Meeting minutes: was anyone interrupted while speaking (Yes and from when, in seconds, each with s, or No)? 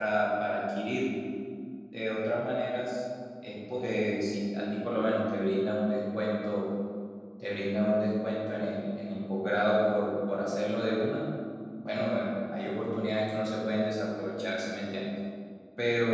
No